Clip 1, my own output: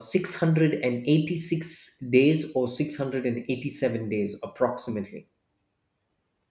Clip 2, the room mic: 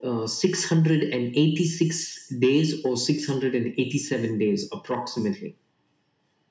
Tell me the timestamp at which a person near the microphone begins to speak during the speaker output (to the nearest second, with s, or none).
none